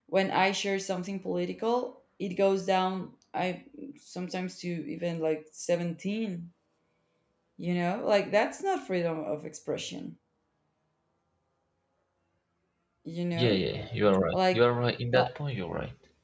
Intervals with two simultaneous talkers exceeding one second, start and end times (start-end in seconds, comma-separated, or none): none